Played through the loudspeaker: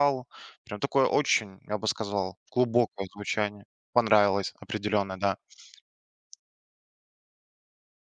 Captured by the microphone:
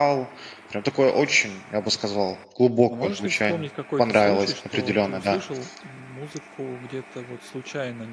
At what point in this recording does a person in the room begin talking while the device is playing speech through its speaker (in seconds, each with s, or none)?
2.9 s